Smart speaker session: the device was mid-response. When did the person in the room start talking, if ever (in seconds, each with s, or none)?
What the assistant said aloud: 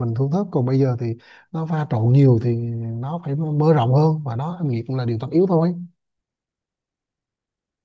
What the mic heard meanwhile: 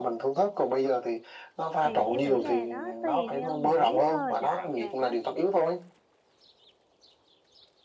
1.8 s